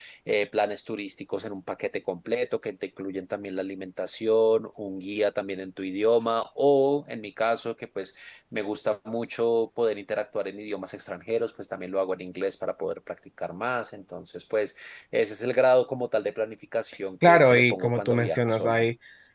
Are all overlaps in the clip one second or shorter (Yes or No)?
No